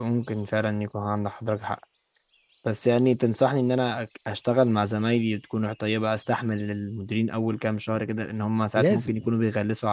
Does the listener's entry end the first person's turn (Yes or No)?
No